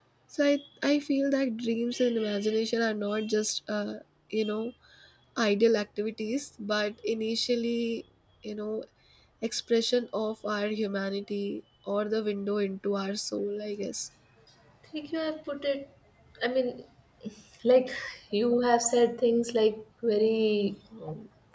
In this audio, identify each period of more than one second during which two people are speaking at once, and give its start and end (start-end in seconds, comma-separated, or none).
none